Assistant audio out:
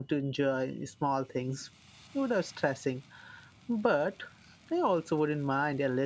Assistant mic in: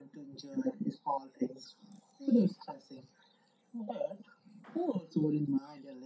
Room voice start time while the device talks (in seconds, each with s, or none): none